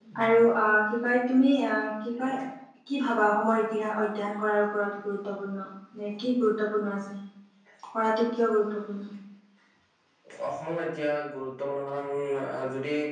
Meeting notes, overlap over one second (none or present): none